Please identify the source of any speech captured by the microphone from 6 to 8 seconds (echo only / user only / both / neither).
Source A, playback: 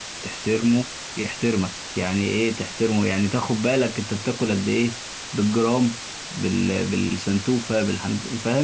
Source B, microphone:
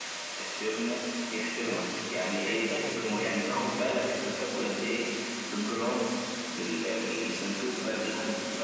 echo only